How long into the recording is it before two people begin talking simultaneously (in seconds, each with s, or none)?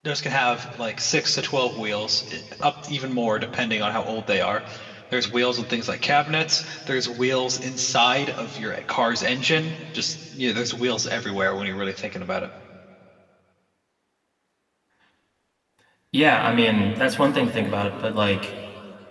none